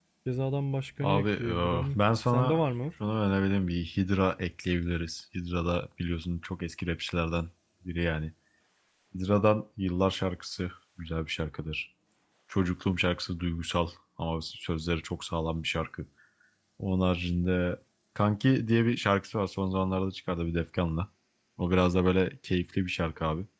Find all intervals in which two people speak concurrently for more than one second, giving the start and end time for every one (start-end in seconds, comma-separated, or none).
1.0-2.6